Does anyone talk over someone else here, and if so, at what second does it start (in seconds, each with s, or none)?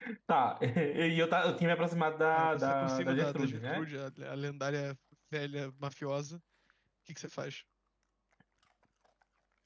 2.3 s